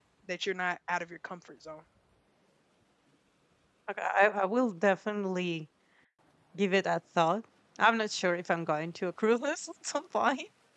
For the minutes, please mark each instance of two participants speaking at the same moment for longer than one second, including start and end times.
none

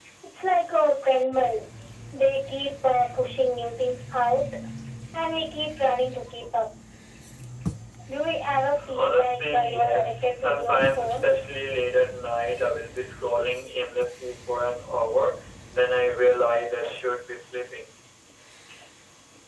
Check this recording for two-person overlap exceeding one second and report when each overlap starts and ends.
8.9-11.2

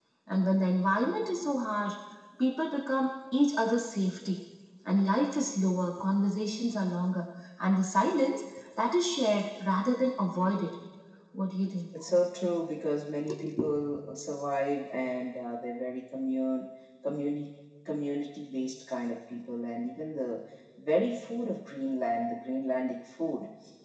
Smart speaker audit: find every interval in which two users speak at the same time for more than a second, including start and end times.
none

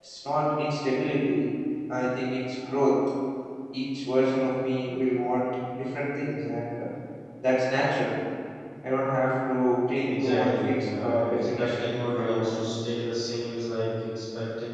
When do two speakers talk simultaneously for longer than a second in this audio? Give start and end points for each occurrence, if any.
10.1-12.5

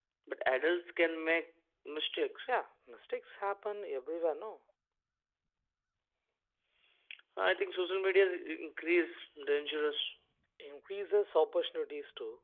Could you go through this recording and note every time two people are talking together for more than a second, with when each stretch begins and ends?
none

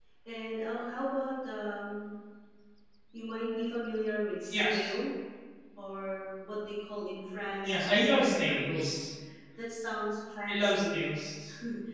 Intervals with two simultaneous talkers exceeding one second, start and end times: 7.6-8.9

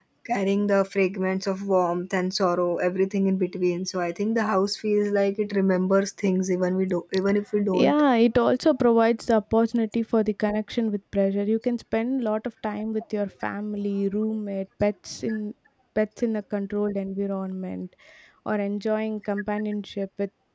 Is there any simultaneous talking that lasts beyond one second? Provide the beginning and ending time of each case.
none

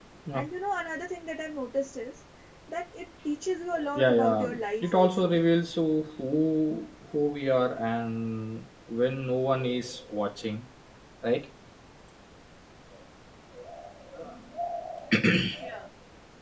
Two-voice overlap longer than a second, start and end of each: 4.0-5.3

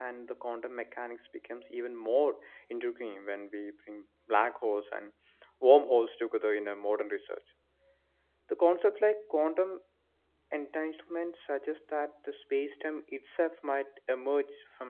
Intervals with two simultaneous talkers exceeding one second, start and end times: none

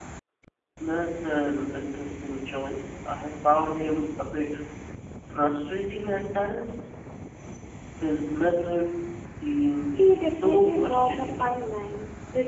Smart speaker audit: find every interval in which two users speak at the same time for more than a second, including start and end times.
10.0-11.6

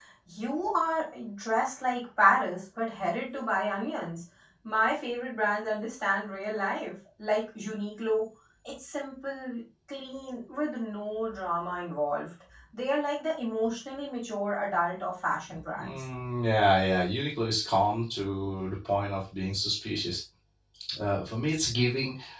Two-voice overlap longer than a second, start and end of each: none

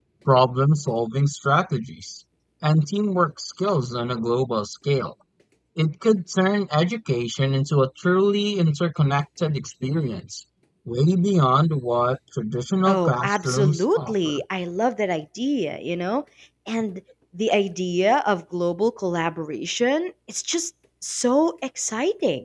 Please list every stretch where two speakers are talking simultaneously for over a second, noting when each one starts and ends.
12.9-14.4

